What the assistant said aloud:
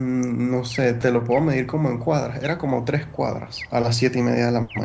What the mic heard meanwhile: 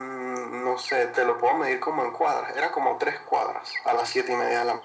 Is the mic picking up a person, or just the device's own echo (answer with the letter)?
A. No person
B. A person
A